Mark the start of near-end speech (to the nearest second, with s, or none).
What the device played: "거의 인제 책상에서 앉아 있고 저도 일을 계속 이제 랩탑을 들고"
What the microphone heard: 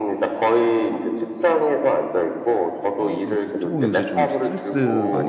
3 s